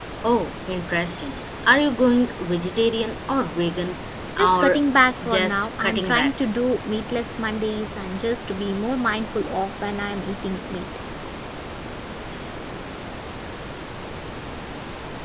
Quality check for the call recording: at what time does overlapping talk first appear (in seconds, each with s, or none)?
4.4 s